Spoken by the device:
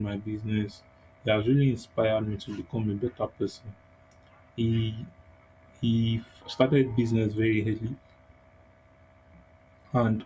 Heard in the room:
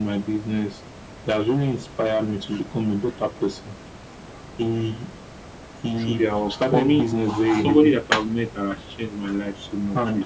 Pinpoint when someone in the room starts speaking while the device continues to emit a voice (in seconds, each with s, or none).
6.0 s